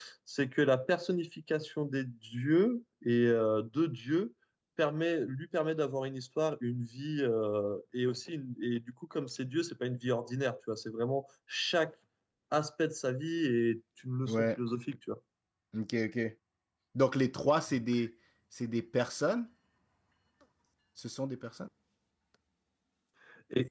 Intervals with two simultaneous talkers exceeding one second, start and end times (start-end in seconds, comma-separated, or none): none